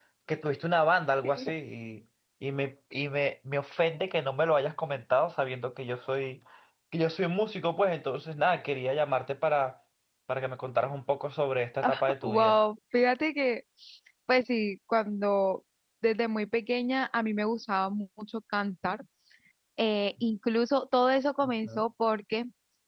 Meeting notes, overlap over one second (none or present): none